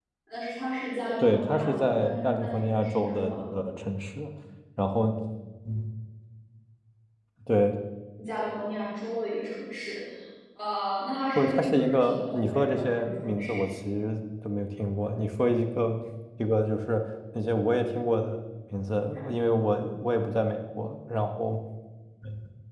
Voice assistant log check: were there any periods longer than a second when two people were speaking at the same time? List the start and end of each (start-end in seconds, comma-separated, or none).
1.2-3.4, 11.4-13.8